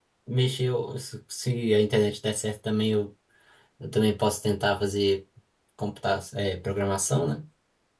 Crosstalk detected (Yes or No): No